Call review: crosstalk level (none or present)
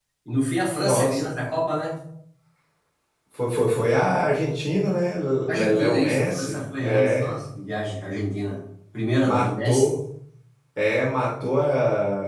present